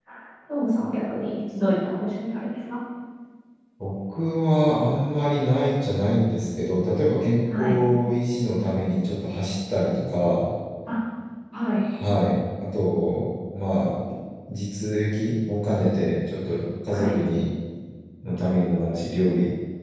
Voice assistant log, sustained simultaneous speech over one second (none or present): none